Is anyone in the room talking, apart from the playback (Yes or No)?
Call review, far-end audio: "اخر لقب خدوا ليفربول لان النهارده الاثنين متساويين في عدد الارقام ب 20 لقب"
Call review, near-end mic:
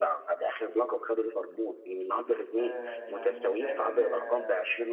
Yes